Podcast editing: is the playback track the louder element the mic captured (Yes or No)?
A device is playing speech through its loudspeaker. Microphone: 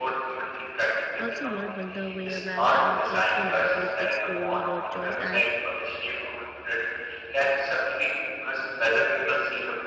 Yes